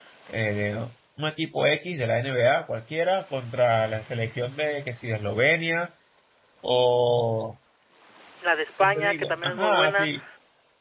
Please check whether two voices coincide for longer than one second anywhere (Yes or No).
Yes